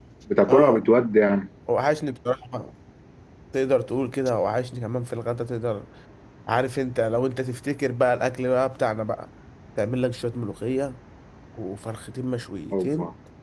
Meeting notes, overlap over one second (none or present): none